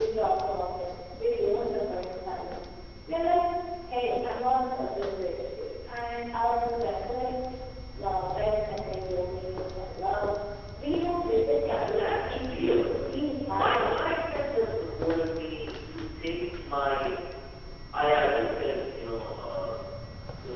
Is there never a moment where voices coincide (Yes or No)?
No